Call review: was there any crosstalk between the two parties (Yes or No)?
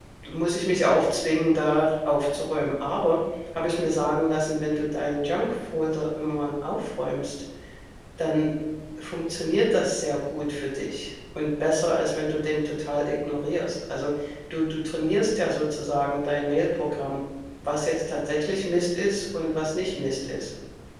No